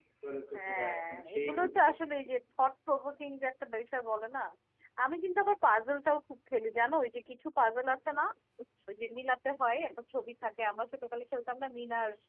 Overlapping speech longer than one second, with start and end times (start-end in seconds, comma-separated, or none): 0.6-1.8